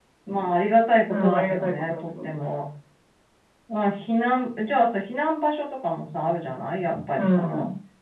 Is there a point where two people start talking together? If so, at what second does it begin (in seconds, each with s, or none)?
1.1 s